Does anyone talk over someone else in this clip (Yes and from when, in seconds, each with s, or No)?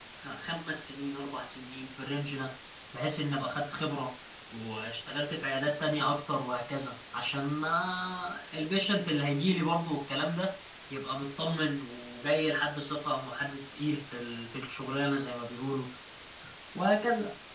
No